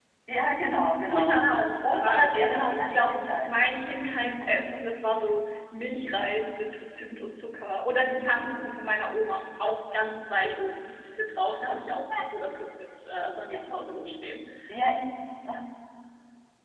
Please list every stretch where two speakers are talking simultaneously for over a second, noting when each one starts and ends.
1.1-3.5

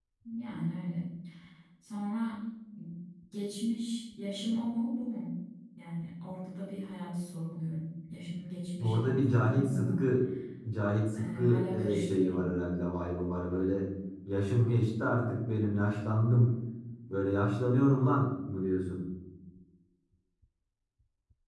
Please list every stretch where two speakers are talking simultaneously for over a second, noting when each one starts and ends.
8.8-10.0, 11.2-12.5

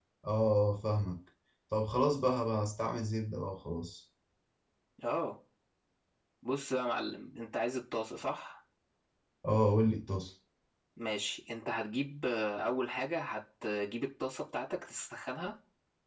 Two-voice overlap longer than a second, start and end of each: none

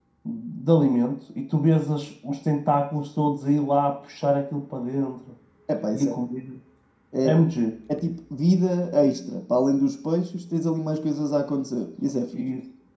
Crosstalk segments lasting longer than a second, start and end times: none

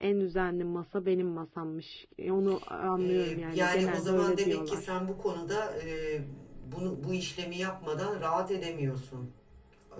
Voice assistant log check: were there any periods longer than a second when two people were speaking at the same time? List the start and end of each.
3.0-4.8

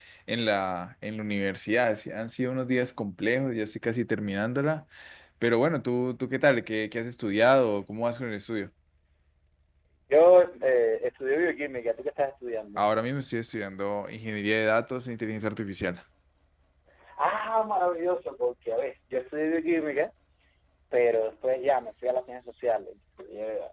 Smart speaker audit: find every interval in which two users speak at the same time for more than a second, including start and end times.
none

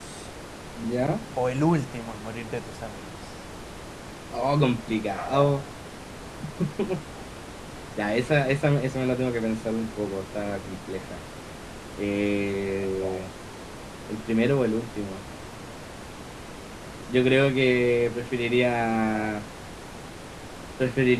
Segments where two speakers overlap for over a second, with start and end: none

